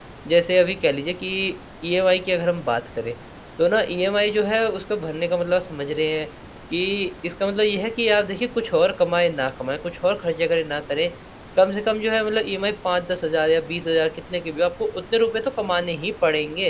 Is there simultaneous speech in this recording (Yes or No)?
No